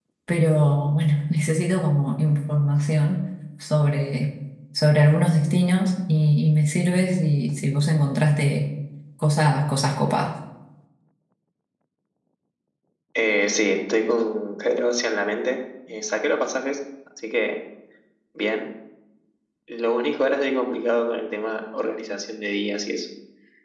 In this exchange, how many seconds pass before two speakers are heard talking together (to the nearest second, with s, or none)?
none